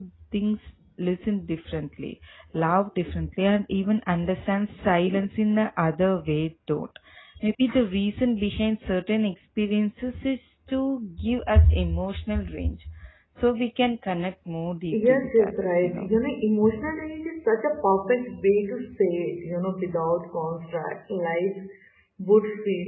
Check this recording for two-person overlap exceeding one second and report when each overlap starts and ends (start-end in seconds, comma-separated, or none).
14.9-16.1